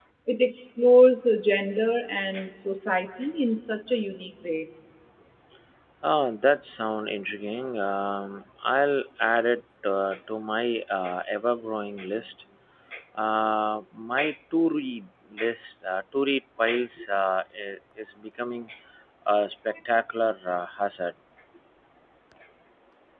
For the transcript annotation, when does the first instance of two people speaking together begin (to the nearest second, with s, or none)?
none